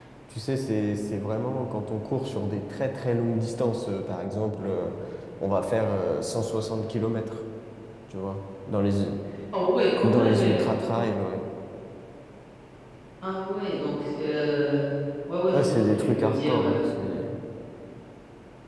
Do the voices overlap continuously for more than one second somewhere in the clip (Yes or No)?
Yes